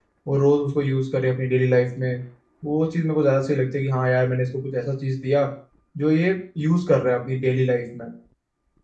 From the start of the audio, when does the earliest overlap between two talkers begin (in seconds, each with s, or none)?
none